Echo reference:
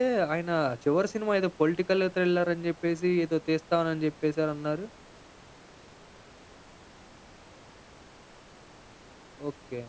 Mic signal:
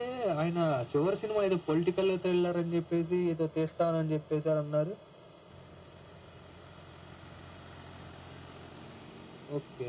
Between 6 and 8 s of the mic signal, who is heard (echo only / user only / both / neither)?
neither